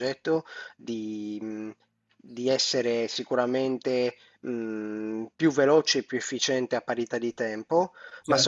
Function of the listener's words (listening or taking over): listening